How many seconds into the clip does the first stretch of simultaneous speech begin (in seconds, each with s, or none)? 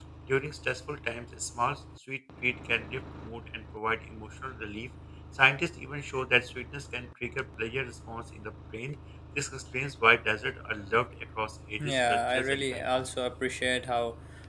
11.8 s